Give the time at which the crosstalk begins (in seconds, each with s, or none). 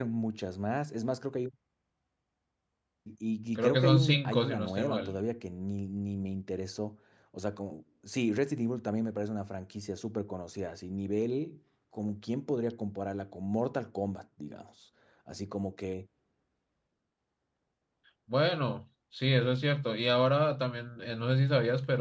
3.5 s